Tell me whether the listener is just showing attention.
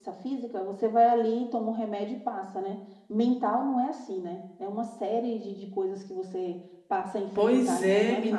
No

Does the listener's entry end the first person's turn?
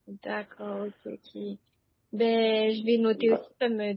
No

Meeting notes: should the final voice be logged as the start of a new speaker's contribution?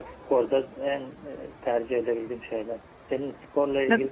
Yes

